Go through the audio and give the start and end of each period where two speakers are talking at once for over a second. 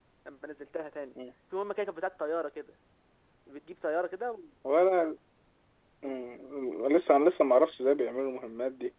none

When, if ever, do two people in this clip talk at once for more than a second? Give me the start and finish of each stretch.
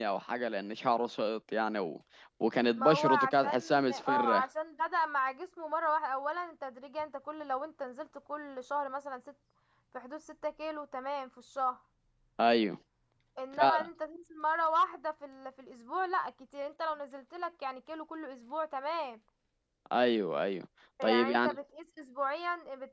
2.8-4.5

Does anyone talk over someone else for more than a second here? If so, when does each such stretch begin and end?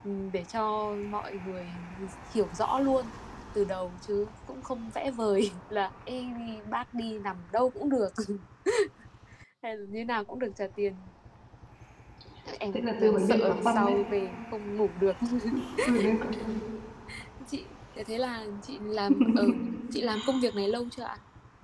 12.7-13.9

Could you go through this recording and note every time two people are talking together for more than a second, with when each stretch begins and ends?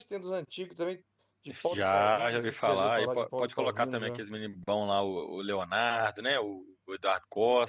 1.7-4.2

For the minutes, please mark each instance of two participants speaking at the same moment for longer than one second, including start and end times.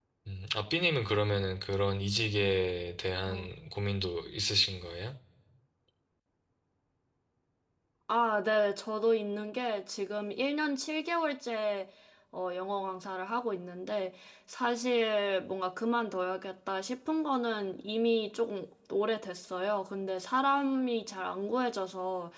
none

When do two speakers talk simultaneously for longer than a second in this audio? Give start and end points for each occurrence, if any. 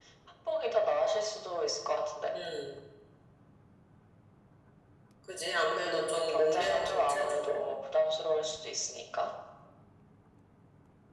5.7-7.6

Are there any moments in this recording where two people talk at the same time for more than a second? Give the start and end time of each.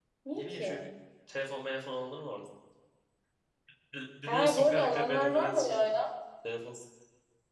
4.2-5.8

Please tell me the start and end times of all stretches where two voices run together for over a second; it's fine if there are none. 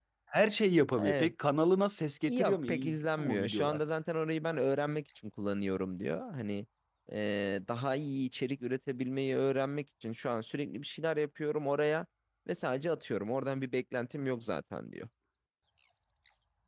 2.3-3.8

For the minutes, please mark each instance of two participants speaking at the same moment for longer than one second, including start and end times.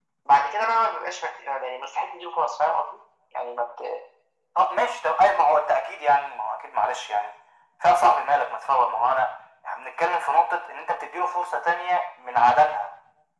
none

